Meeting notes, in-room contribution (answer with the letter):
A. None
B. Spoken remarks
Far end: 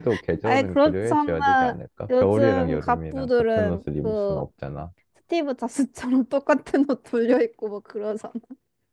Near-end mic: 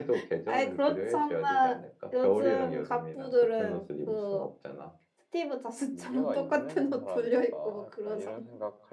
B